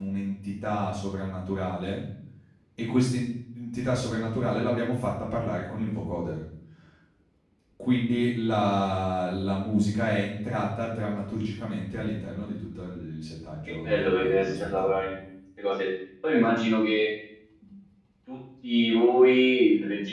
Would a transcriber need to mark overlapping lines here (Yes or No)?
Yes